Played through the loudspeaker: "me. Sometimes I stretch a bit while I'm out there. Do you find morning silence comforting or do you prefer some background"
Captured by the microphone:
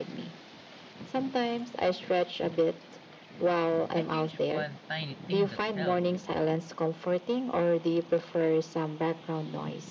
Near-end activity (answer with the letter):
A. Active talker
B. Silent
A